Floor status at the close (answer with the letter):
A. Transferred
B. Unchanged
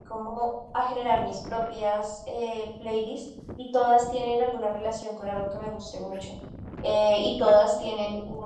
B